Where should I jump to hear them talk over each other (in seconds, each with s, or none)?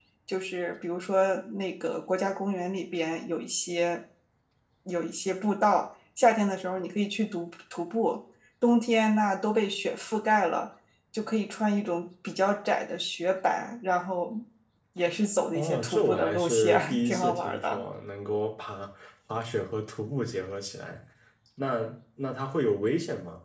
15.5 s